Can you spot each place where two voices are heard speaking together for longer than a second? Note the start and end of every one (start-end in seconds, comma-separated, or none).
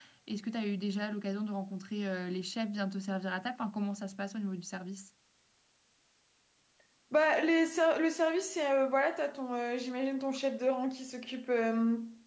none